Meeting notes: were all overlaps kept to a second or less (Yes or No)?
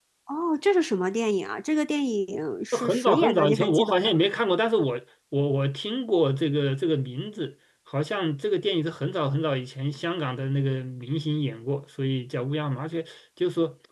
No